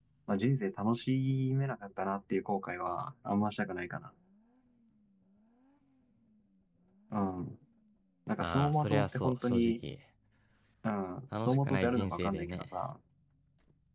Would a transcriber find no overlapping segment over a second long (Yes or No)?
No